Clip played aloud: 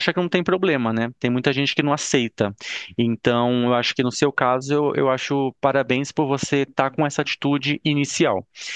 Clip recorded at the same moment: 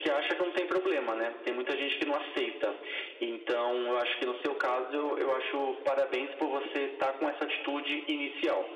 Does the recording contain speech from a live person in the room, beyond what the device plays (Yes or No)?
No